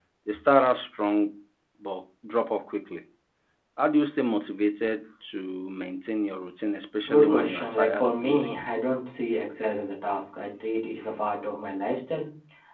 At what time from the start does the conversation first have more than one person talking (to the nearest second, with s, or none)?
7 s